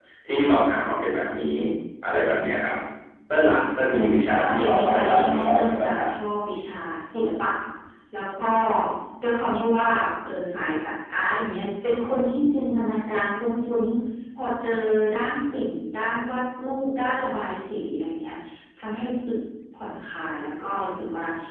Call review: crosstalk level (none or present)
present